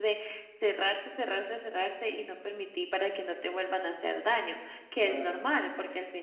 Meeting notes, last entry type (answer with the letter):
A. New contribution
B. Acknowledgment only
B